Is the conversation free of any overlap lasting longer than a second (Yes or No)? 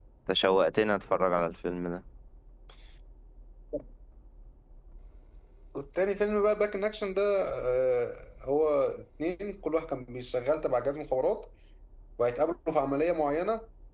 Yes